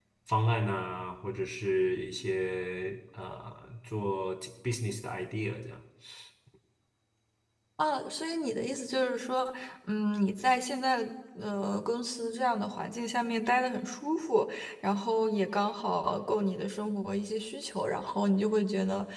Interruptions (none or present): none